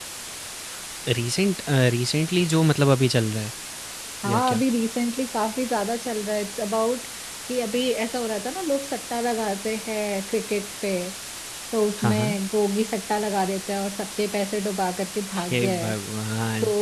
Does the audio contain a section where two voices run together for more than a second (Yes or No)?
No